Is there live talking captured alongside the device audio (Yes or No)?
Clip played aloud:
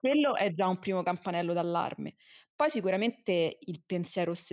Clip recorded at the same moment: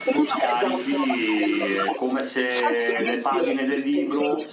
Yes